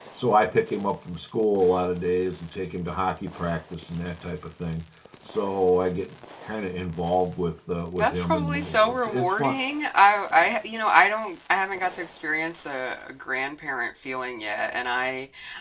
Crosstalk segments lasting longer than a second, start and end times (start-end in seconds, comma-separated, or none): 8.0-9.5